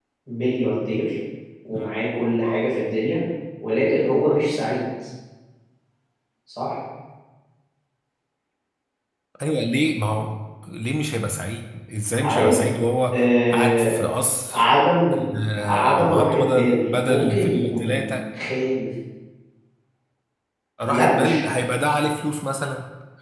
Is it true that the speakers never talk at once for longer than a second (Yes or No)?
No